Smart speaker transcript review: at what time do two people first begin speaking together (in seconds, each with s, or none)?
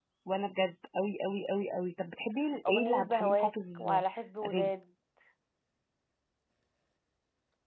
2.7 s